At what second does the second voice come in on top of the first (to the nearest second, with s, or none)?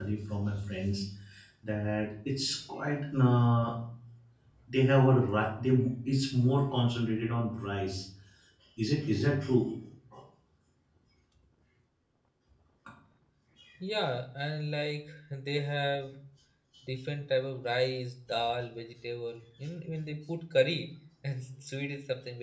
none